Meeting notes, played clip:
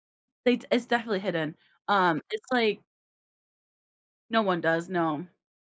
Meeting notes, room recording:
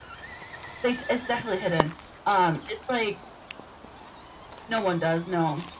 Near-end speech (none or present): none